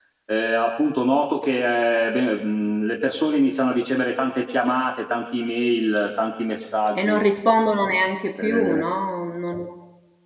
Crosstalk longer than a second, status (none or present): none